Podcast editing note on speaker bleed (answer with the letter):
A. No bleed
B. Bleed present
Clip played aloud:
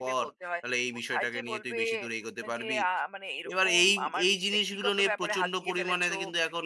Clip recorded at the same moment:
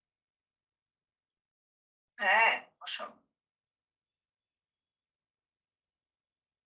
A